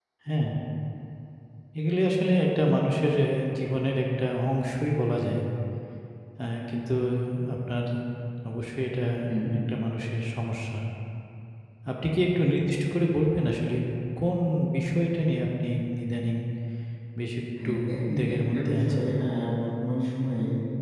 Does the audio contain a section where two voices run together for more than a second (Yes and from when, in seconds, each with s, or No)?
Yes, from 17.6 s